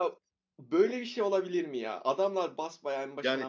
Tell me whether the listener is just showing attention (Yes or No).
No